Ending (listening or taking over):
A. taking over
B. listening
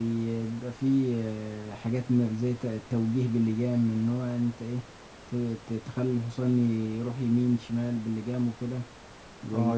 A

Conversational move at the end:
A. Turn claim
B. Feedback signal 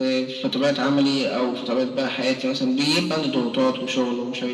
B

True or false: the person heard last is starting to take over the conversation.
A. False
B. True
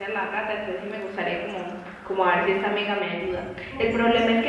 A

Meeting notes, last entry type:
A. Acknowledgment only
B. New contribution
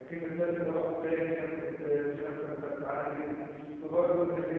A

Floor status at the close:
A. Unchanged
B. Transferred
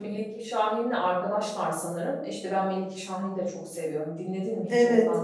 B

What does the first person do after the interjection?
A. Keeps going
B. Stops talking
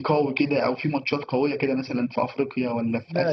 B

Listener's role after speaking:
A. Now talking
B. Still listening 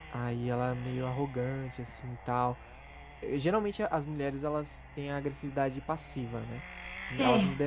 B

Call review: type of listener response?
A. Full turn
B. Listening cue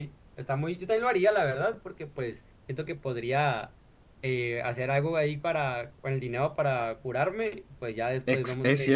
A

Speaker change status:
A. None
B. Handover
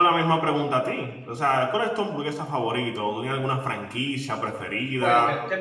B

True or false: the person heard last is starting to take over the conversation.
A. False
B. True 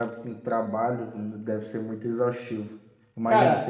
A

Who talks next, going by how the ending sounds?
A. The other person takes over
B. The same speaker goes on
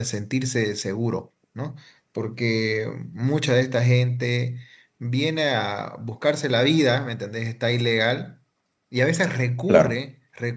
B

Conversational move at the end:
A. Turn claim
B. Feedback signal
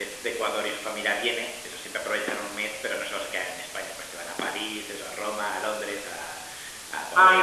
A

